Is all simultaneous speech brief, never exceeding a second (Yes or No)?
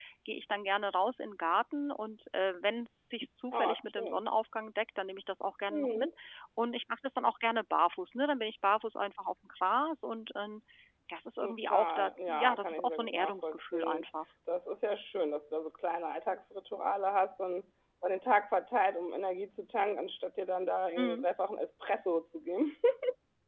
No